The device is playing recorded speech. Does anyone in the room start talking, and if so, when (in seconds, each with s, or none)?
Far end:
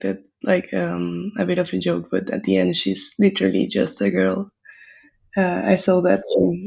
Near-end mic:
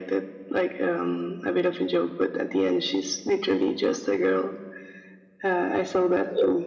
none